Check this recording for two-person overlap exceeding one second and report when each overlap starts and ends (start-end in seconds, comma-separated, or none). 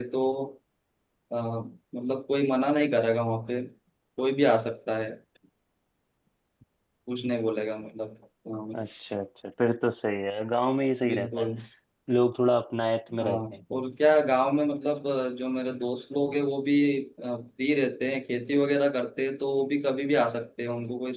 none